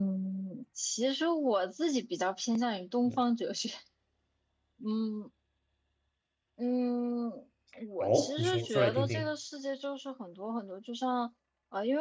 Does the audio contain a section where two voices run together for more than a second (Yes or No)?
Yes